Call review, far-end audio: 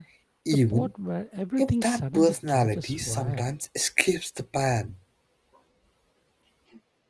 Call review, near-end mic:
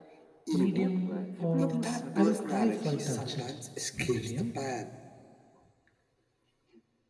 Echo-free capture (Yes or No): No